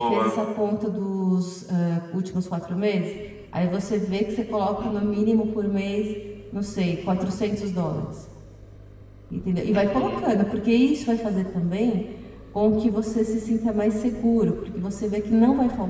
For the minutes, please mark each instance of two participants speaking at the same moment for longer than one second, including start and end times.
none

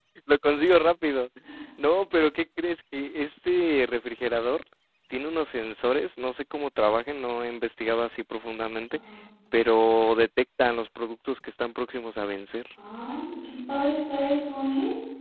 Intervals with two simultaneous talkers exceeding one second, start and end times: none

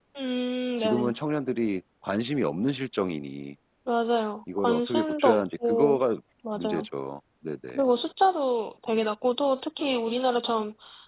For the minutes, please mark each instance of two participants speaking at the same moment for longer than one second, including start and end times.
4.6-6.0

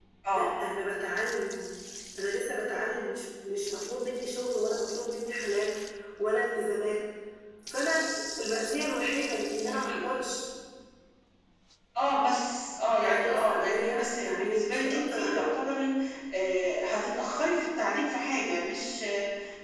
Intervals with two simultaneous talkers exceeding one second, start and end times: 12.9-15.5

